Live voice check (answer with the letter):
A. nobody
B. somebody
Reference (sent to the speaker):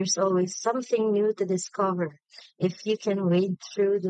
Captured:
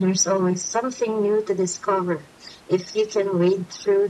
A